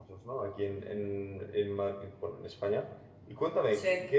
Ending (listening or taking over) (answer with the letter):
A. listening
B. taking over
A